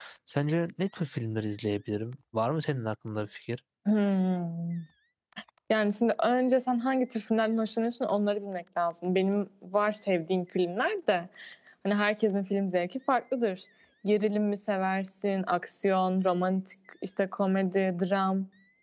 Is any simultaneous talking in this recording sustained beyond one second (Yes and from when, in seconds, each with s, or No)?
No